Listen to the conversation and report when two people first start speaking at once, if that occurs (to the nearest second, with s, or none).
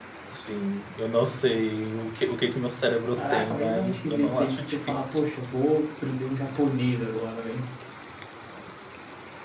3 s